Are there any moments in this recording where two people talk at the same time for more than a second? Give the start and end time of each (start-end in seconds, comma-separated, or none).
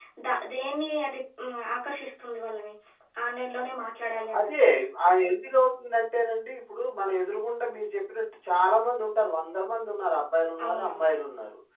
none